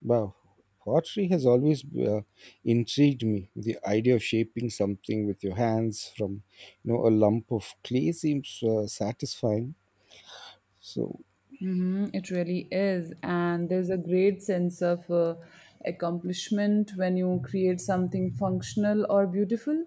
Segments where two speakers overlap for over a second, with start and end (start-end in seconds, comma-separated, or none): none